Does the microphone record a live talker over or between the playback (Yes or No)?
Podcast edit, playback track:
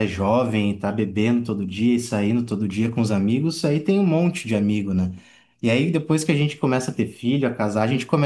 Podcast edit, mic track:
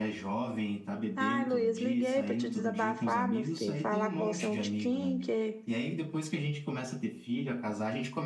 Yes